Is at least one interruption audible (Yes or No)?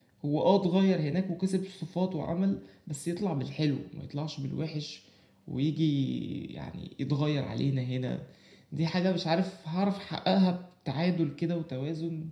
No